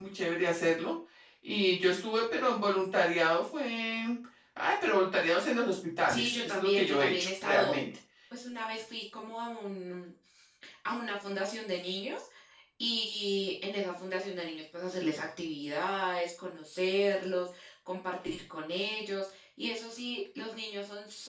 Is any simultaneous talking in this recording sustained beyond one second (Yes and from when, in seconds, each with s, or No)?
Yes, from 6.1 s